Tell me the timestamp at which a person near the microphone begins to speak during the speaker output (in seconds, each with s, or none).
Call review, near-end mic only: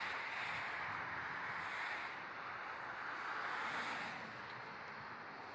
none